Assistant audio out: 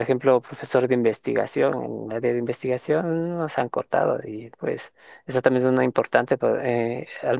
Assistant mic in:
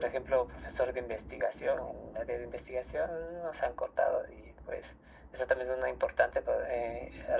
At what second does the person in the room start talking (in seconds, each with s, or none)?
none